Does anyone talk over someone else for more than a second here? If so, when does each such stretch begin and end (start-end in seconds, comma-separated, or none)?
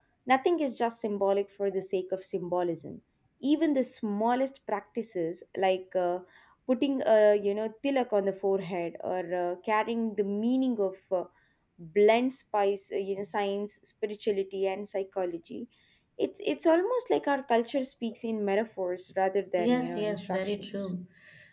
19.6-20.9